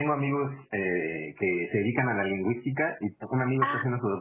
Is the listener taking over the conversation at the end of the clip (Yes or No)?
No